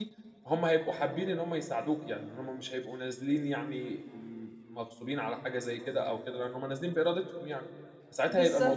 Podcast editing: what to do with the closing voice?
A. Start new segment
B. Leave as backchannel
B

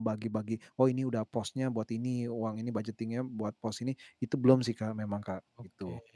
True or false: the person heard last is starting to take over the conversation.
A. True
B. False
A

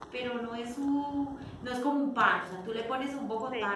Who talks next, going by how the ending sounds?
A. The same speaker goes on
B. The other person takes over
A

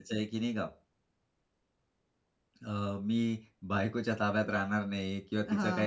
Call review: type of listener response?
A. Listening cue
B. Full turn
A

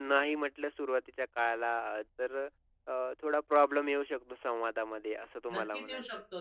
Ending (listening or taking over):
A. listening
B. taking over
B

